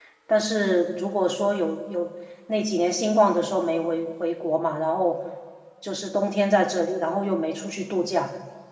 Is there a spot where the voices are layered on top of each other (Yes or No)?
No